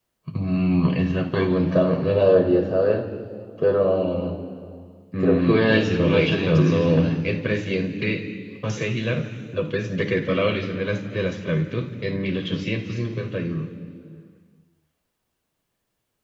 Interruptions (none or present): present